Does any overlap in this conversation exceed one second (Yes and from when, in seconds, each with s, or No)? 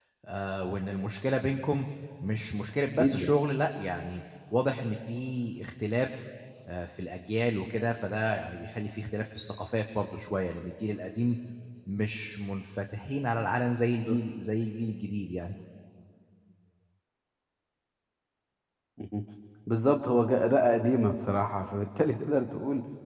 No